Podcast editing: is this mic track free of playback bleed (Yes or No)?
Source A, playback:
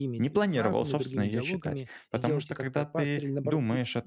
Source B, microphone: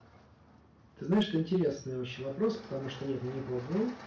Yes